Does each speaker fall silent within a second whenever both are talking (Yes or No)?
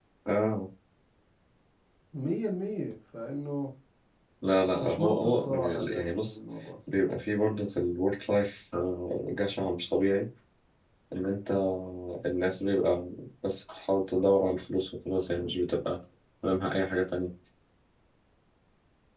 No